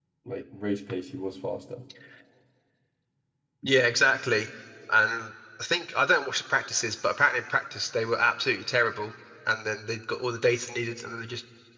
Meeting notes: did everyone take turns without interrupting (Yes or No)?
Yes